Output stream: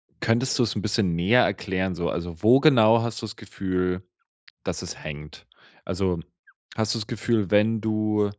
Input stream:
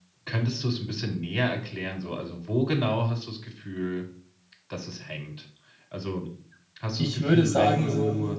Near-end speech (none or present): present